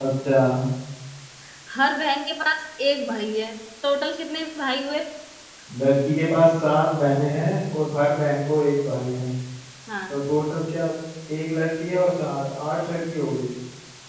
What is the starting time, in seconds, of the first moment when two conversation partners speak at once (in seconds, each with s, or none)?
none